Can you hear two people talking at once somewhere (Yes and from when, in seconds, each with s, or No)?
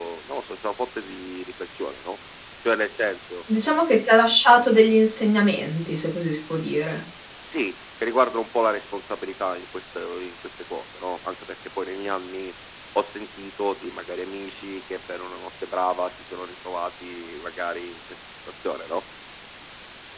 No